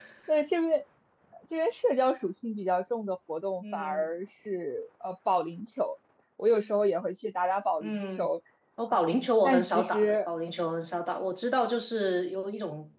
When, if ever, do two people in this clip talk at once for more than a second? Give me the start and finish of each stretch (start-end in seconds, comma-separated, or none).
8.9-10.3